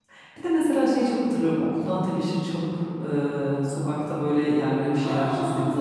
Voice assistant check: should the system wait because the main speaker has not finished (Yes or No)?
No